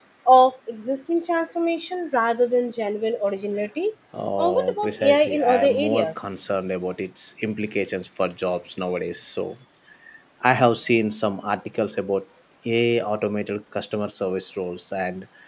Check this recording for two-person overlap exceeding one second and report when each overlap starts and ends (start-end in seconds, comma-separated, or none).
4.4-6.1